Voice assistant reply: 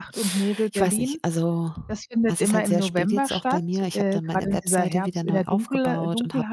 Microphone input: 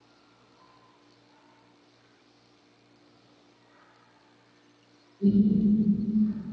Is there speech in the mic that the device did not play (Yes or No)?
Yes